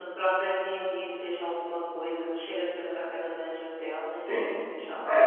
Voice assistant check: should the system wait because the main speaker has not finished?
No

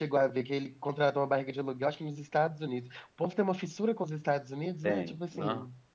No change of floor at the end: No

